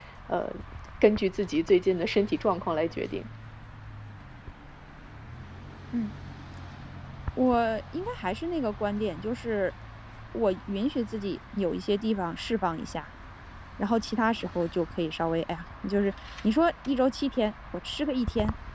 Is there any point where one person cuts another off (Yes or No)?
No